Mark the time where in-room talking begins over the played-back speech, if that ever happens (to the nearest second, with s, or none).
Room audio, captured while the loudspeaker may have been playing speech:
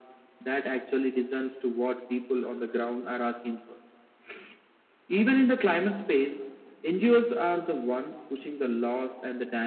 none